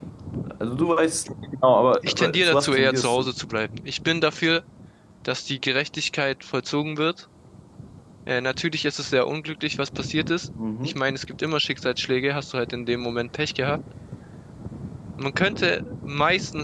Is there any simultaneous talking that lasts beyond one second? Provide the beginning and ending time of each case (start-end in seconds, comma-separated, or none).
2.0-3.3